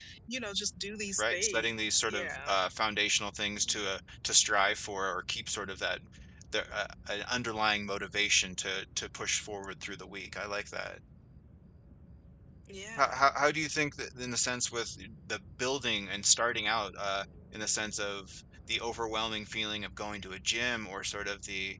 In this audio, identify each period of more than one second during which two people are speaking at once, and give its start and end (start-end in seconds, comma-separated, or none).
1.2-2.5